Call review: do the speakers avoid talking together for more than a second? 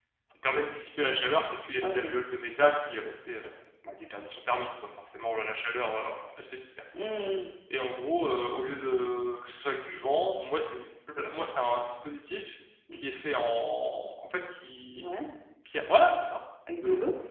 Yes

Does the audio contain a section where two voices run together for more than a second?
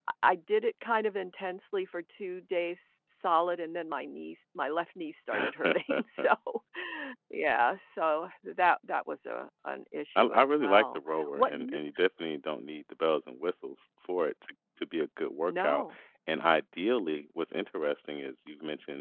Yes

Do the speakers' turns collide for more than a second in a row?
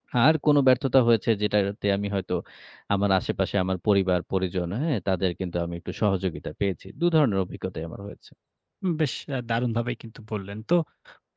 No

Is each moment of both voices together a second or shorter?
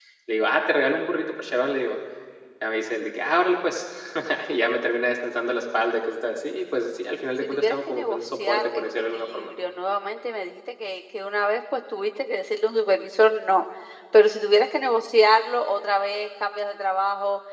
No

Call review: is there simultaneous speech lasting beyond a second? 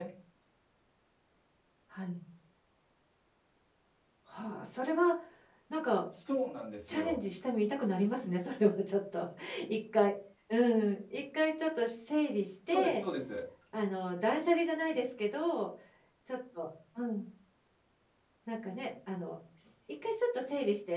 No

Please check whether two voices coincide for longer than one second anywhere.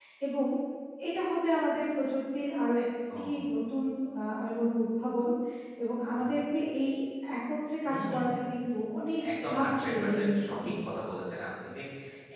Yes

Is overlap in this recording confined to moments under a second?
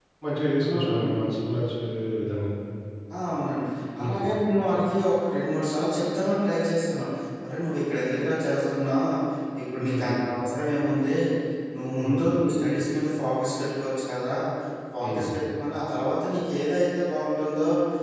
Yes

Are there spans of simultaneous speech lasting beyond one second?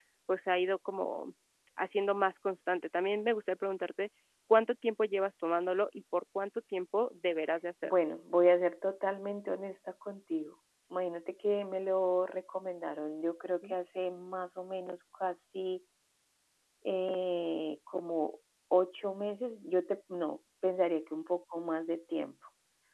No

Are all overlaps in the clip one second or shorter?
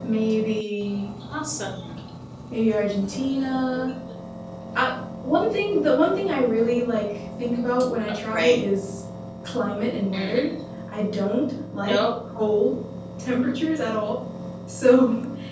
Yes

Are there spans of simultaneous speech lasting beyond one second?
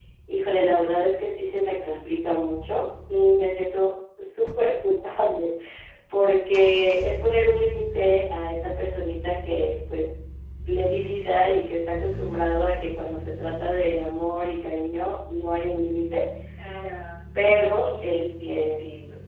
Yes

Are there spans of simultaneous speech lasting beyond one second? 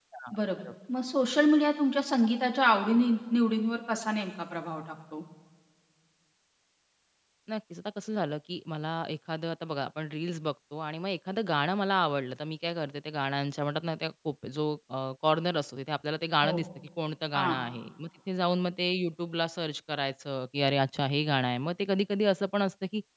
No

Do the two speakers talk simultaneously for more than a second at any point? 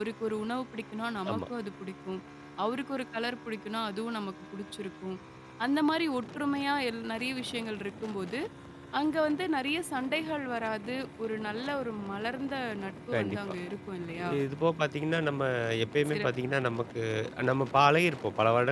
No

